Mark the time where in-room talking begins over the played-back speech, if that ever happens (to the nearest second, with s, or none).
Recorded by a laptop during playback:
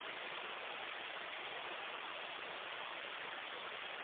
none